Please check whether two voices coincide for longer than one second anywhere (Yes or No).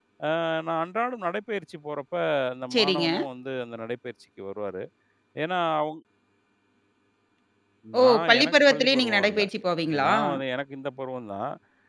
Yes